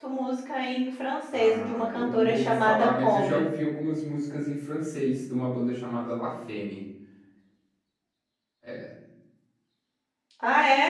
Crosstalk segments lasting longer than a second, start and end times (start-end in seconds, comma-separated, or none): 1.3-3.4